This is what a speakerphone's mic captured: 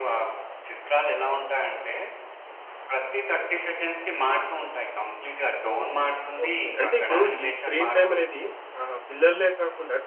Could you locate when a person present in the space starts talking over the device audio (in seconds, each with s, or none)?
6.4 s